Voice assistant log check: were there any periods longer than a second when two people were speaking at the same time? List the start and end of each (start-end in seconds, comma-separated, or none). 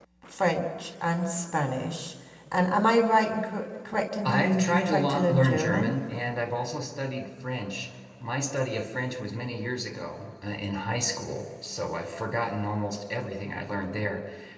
4.3-5.9